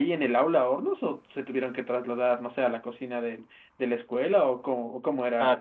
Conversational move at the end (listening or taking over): taking over